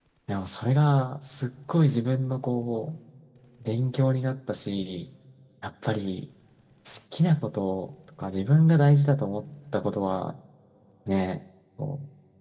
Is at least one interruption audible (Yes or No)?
No